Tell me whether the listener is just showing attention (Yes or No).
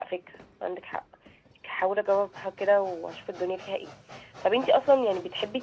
Yes